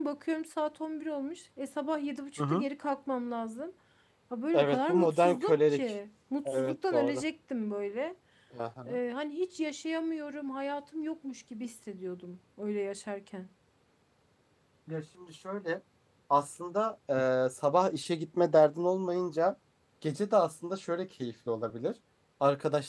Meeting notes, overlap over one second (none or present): present